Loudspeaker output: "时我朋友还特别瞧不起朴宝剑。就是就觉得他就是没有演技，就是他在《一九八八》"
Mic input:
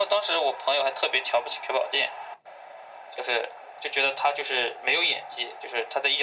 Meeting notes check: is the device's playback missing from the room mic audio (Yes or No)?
No